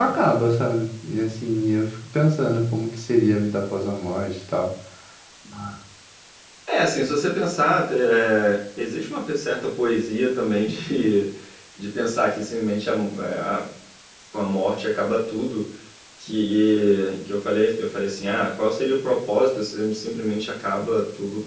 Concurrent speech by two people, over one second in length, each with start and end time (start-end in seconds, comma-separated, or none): none